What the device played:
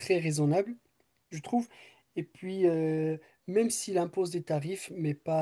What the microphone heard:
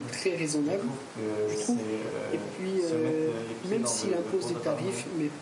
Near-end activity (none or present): present